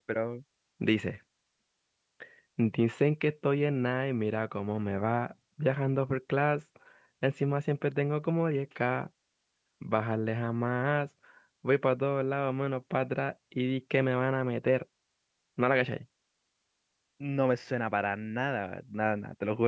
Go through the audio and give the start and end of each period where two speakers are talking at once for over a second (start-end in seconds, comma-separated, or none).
none